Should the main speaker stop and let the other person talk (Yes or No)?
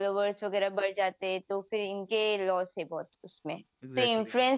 No